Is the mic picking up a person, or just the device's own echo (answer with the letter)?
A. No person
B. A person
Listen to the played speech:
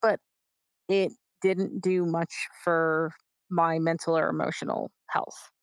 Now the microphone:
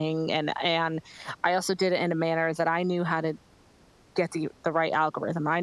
B